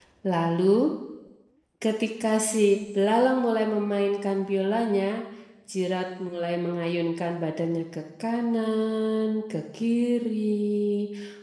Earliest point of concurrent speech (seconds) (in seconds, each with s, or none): none